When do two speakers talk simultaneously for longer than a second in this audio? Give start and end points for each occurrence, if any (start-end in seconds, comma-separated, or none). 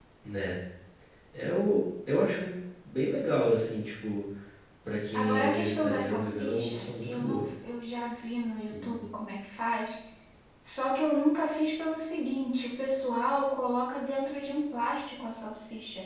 5.1-7.5